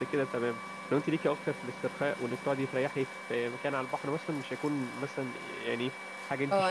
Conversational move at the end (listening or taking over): taking over